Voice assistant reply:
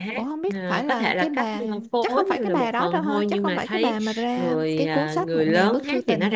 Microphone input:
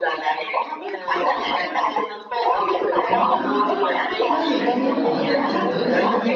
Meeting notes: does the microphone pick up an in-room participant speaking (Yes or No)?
Yes